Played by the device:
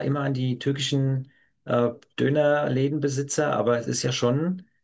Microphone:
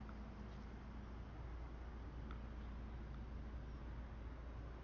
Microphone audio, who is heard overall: neither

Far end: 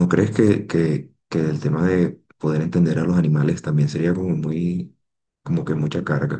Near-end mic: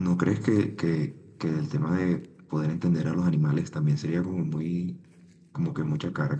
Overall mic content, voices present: echo only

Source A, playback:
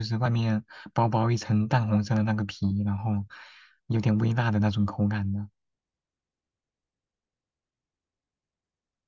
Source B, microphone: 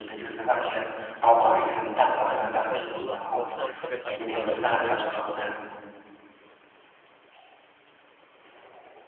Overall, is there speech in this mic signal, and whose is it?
both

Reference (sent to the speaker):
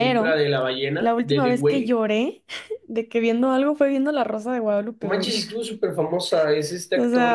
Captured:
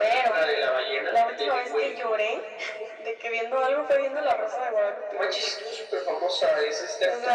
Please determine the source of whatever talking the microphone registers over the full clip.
echo only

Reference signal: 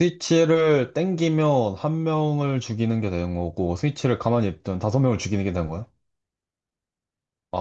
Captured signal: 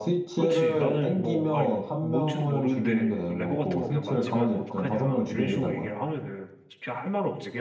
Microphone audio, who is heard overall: both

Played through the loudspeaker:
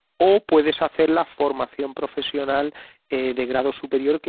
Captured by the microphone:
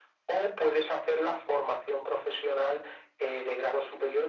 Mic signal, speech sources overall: echo only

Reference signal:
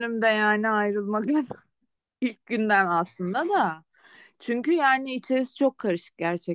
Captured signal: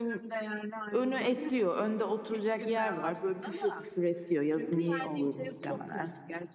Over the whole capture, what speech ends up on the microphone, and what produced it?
both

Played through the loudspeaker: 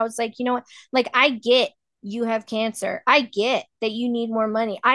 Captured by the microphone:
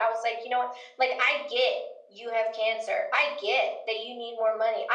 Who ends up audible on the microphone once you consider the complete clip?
echo only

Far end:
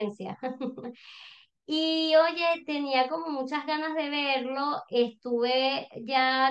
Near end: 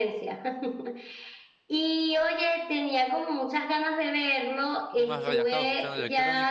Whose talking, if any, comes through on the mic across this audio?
both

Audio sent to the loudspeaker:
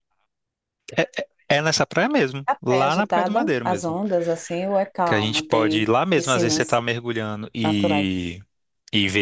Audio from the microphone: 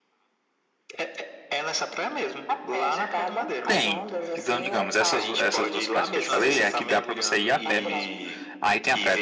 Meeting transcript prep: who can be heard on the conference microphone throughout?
both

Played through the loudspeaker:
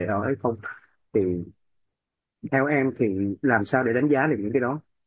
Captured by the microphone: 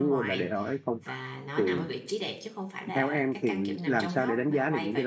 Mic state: both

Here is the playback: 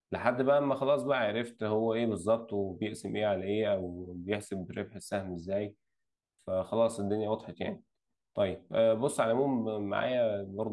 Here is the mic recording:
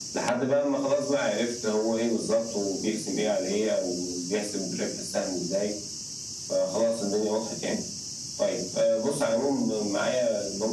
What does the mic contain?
echo only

